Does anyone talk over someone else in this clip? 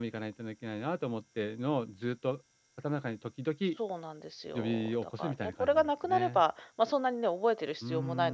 Yes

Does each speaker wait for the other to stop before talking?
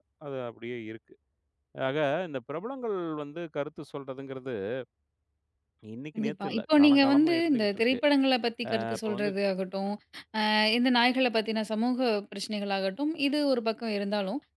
No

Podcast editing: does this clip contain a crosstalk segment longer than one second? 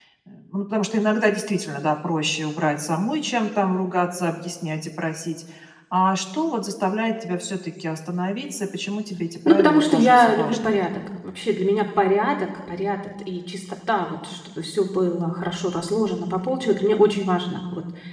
Yes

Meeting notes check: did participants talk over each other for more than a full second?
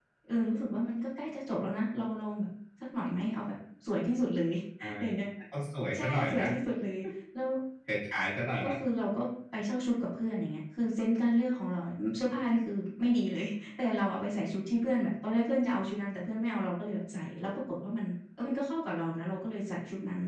No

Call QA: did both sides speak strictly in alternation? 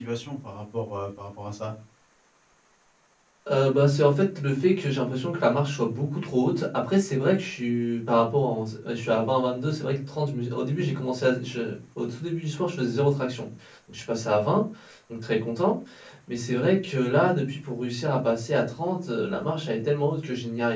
Yes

